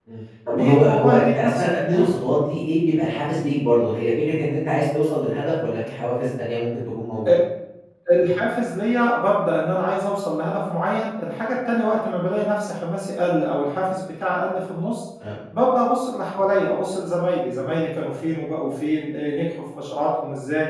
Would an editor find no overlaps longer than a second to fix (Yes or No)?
No